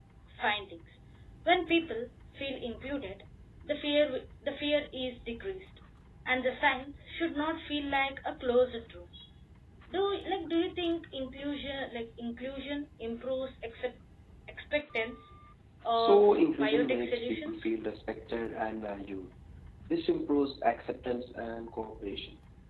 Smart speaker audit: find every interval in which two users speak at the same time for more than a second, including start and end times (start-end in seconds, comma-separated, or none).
15.9-17.7